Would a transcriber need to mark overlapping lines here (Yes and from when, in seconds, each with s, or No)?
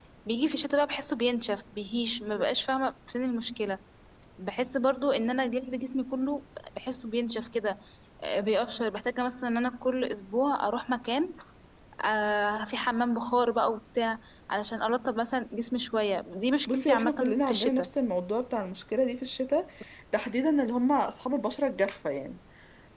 Yes, from 16.7 s